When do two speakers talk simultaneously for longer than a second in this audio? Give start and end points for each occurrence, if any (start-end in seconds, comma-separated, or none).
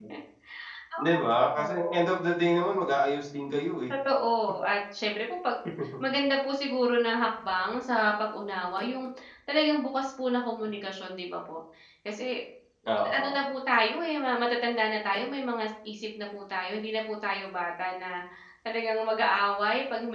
none